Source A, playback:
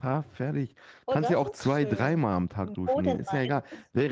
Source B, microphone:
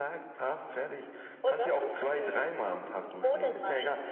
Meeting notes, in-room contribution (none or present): none